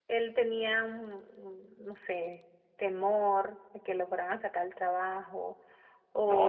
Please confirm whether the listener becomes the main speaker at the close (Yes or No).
No